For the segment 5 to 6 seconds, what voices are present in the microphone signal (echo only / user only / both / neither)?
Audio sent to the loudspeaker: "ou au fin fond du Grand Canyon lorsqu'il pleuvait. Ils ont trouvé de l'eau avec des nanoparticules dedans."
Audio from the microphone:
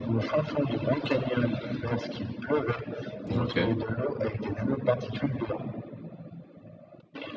echo only